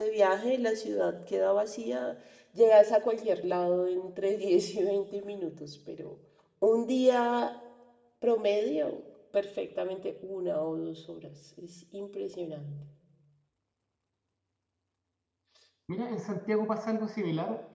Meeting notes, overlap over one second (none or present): none